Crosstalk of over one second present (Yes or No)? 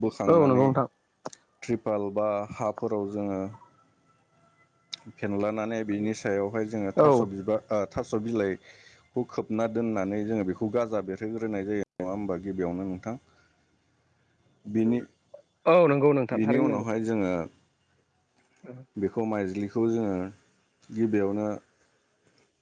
No